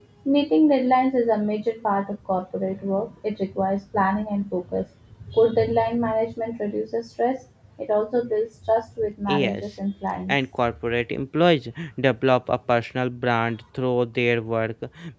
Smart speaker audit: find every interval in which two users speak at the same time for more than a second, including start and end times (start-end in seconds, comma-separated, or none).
none